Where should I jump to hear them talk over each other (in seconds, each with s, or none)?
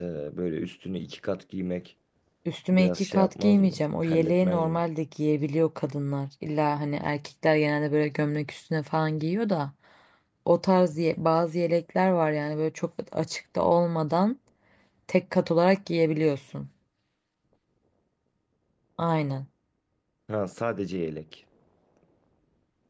2.7 s